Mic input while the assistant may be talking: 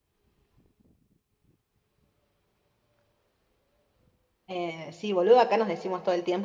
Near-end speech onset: 4.5 s

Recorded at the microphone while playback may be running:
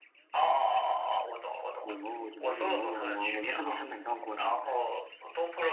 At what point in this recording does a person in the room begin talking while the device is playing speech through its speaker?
1.8 s

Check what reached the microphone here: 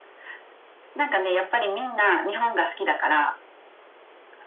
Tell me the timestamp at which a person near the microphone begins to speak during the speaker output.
none

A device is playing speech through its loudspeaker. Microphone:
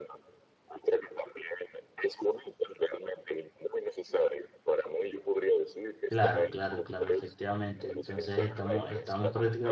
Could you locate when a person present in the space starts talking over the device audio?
6.1 s

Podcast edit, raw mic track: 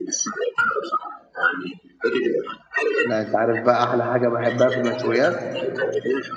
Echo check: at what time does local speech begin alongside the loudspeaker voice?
3.0 s

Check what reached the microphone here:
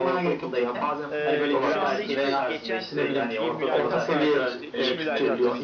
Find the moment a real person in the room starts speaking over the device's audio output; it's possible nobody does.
1.1 s

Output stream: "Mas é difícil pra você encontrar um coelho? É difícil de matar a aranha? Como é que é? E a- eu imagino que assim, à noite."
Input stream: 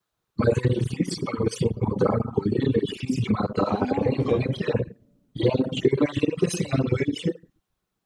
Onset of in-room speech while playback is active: 3.6 s

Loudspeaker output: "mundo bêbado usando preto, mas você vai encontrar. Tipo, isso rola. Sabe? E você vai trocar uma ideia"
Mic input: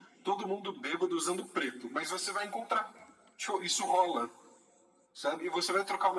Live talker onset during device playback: none

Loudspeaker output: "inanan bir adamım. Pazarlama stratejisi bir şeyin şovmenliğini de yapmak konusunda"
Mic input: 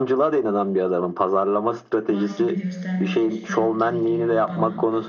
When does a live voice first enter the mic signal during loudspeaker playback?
2.1 s

